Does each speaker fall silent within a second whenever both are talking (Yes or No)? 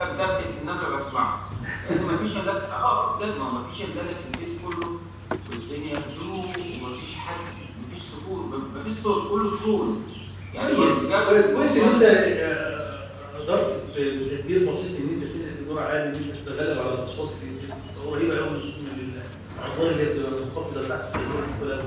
No